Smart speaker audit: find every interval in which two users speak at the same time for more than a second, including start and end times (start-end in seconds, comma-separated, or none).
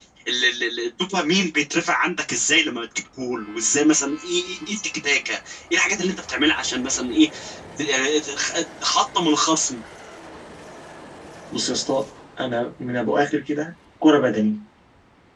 none